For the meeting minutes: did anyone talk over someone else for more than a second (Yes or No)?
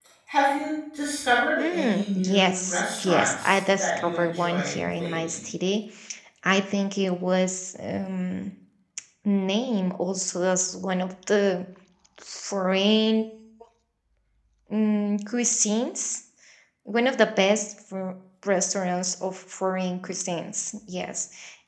Yes